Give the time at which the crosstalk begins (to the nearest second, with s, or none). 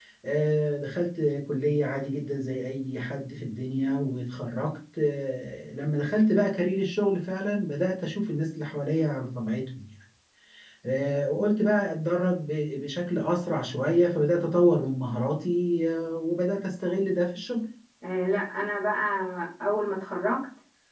none